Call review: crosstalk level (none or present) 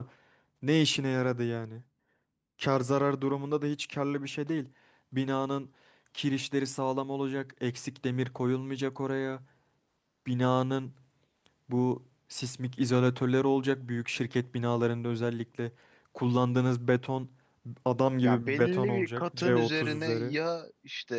present